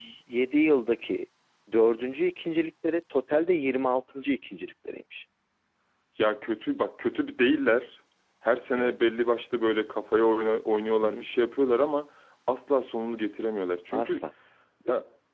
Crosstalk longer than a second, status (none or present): none